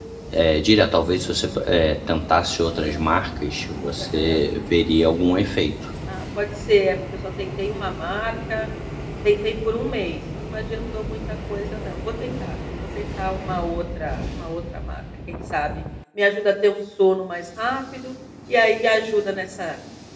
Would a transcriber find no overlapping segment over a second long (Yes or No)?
Yes